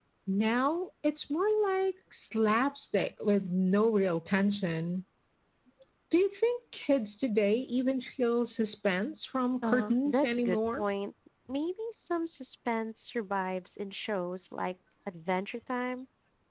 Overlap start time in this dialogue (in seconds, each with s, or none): 9.6 s